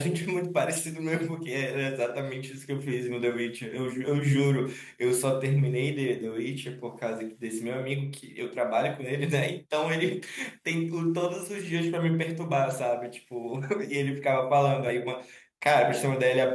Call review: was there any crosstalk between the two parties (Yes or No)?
No